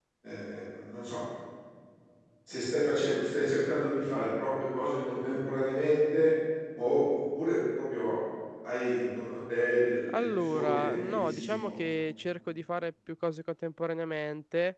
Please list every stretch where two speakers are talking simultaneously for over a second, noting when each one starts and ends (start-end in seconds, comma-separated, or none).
10.2-11.7